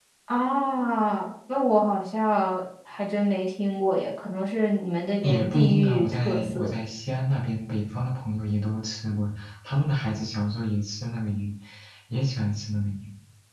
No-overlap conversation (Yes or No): No